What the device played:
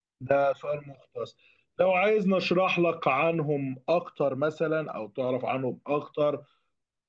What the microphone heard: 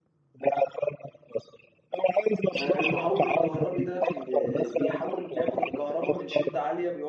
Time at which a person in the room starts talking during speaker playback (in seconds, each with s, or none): 2.5 s